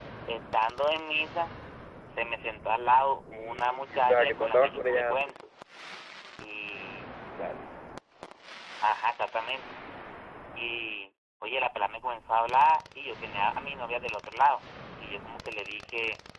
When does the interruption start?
3.3 s

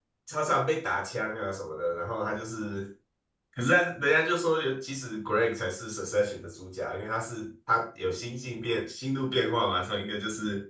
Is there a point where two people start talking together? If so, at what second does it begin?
none

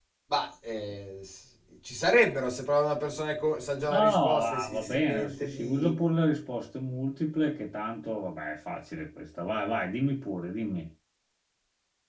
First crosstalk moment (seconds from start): 3.8 s

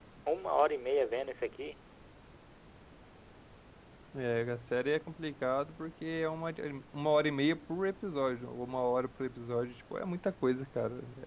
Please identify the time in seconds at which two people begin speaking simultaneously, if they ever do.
none

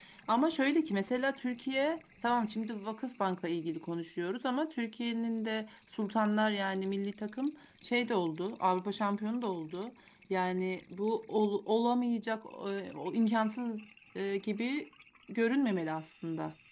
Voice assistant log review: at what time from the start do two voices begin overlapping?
none

